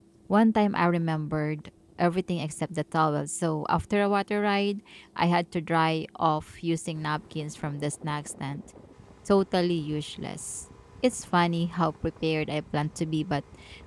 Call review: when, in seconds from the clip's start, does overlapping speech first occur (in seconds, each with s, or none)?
none